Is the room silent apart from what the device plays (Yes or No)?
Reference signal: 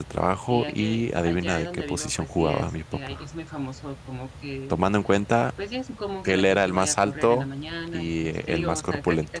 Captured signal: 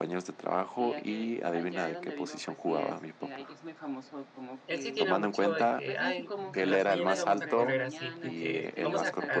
No